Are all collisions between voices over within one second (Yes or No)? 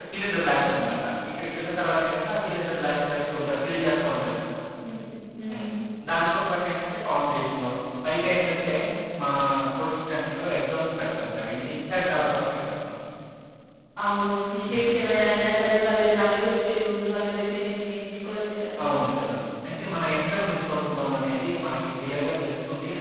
Yes